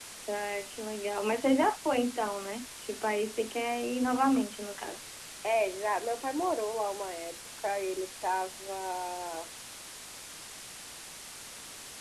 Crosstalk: none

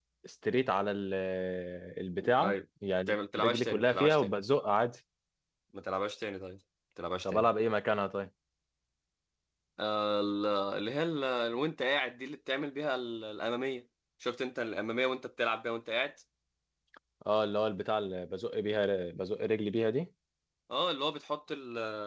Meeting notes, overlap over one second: present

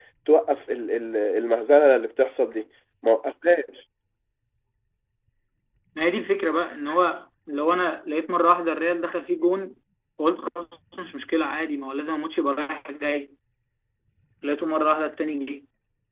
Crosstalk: none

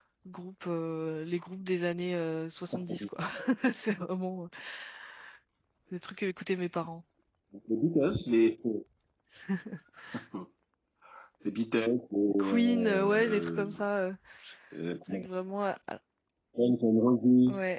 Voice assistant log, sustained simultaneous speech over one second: present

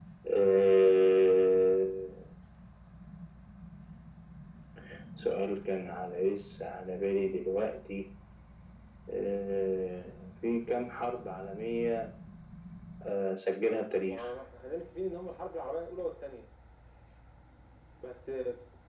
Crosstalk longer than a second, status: none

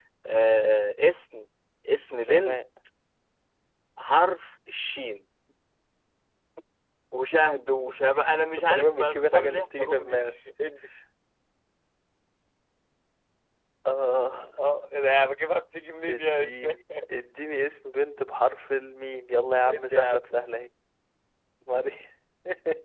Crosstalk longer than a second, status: present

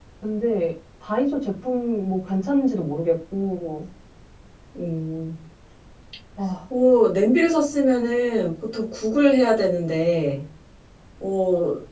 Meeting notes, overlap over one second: none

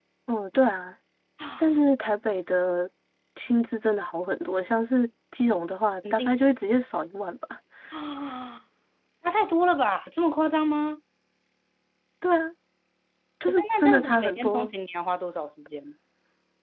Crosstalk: present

